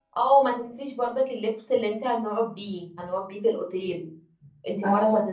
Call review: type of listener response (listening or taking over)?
listening